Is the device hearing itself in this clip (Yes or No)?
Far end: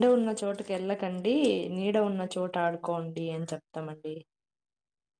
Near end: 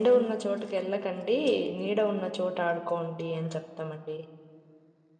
Yes